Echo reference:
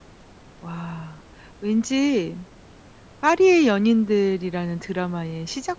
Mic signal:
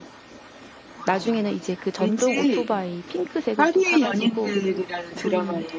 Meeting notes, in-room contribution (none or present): present